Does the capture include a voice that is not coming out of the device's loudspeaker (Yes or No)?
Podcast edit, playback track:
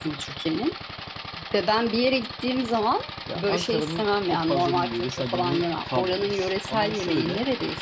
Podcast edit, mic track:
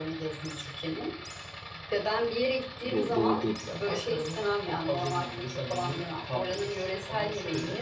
Yes